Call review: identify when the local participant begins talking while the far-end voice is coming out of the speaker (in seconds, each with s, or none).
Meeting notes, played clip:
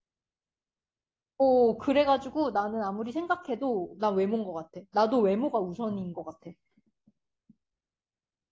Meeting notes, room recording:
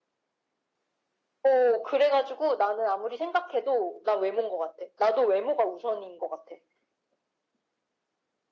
none